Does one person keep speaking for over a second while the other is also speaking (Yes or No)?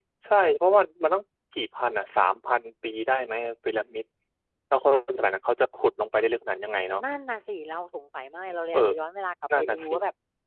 No